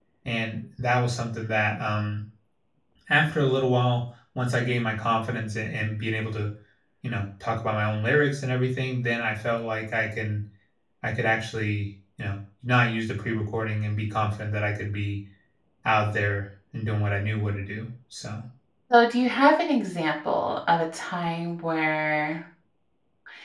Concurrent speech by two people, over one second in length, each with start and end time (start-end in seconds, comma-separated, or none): none